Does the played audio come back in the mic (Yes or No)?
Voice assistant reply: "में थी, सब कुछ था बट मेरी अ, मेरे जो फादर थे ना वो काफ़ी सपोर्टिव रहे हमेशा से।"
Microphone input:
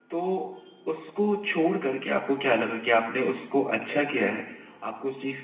No